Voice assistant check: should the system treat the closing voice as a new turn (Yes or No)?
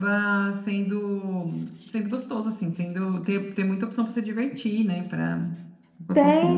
Yes